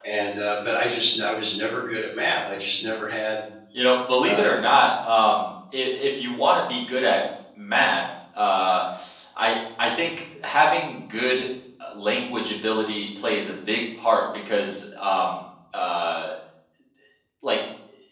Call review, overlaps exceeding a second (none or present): none